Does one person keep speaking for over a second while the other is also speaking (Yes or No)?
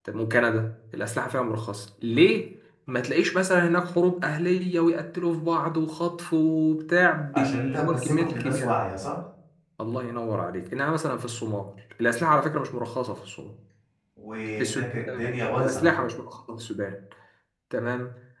Yes